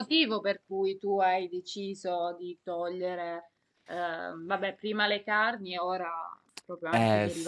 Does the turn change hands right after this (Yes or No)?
Yes